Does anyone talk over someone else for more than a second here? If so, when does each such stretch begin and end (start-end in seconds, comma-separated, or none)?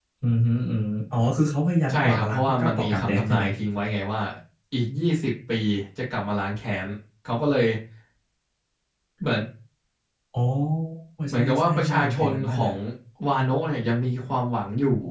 1.9-3.4, 11.3-12.7